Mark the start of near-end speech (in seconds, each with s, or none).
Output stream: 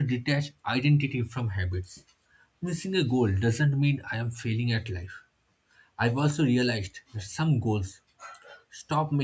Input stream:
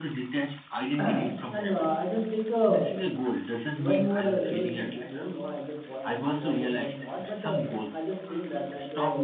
1.0 s